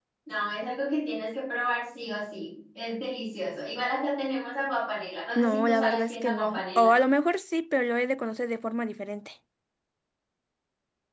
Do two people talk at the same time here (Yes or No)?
Yes